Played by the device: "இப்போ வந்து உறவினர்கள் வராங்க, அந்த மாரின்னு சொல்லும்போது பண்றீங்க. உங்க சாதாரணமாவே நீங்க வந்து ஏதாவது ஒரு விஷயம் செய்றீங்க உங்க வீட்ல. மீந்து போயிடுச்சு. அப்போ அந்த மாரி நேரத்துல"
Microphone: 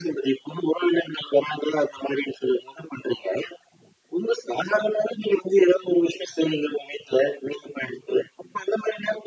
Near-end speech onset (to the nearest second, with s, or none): none